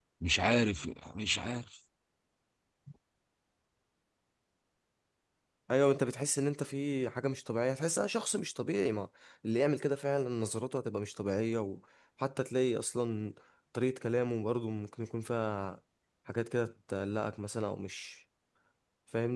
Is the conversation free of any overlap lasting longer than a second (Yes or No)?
Yes